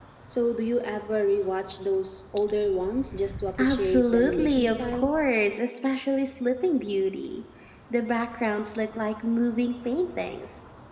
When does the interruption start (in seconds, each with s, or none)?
3.6 s